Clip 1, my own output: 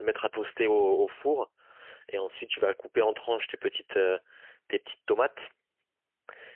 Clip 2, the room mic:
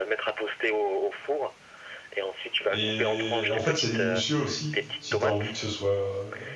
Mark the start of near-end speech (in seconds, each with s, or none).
2.7 s